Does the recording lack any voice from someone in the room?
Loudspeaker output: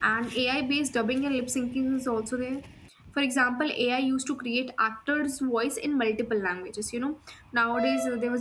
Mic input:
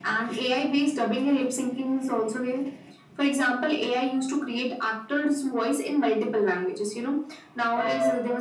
Yes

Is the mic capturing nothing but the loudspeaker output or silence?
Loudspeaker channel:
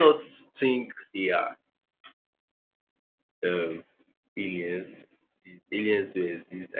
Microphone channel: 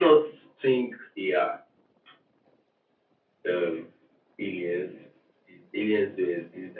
Yes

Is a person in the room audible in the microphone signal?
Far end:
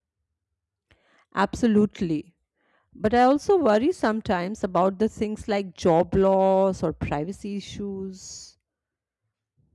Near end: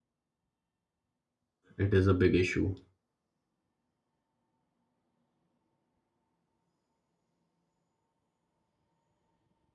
Yes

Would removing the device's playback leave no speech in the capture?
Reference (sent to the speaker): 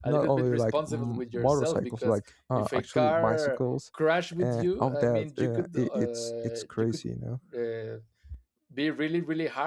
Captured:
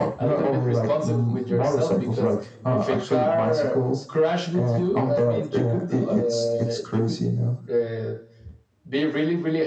Yes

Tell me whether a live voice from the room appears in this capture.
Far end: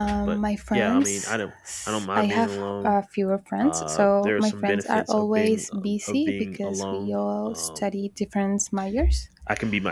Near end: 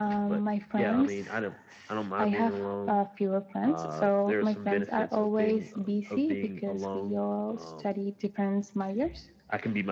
No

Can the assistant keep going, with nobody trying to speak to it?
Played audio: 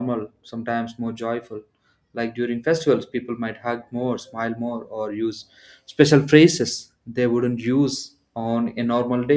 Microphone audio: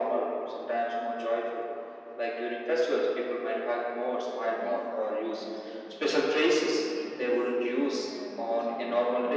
No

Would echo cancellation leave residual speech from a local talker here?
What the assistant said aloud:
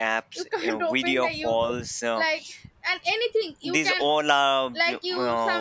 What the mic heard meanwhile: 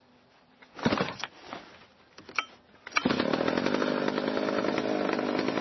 No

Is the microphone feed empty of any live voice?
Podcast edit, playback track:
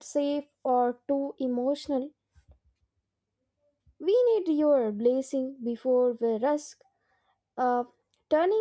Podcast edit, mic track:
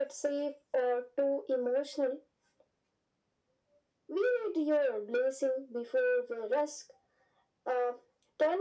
Yes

